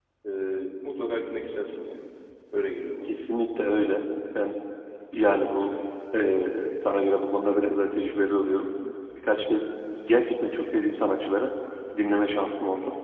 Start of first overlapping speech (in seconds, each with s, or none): none